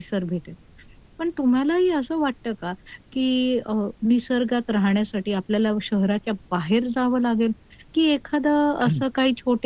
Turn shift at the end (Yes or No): No